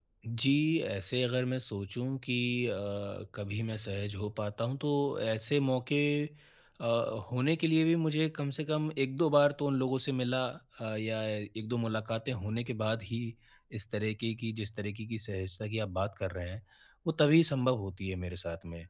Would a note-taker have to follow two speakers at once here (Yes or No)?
No